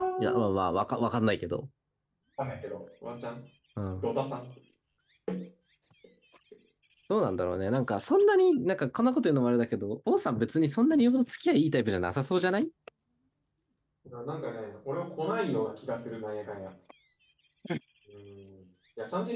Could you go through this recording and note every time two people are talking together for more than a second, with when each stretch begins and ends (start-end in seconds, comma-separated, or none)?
none